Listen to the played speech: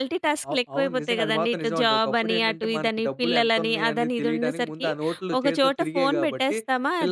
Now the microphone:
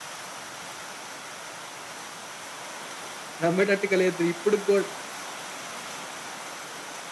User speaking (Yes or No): Yes